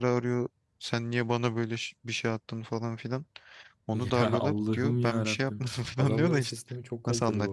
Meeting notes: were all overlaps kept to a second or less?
No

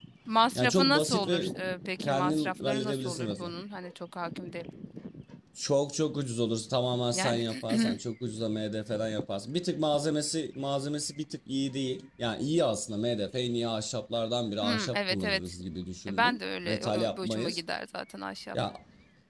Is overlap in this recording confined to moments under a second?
No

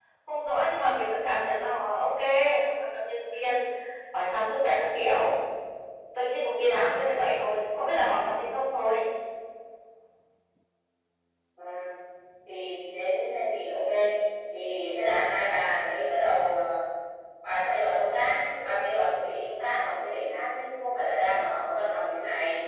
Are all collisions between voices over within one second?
Yes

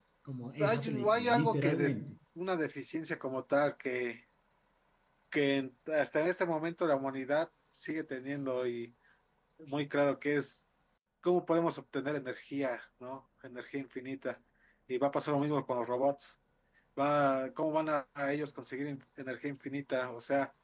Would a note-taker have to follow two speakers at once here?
Yes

